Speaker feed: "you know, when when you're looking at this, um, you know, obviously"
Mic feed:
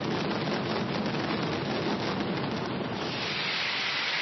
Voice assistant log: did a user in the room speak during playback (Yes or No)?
No